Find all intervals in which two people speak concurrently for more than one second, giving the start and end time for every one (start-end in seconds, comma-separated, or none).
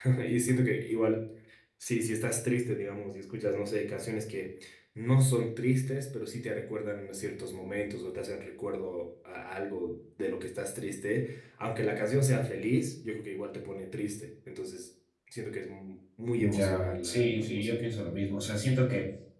16.4-17.7